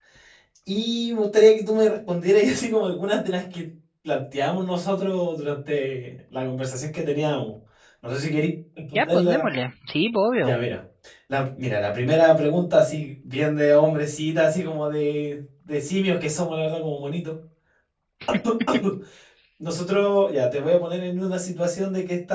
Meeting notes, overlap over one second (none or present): none